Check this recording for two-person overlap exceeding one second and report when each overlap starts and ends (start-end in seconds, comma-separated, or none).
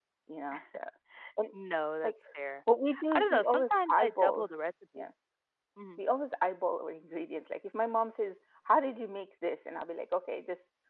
3.1-4.5